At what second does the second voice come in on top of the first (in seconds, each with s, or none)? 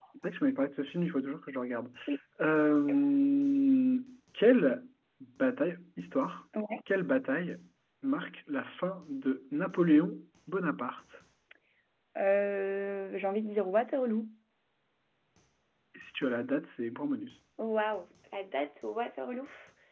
none